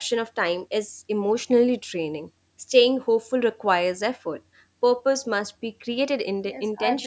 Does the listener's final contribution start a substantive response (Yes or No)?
Yes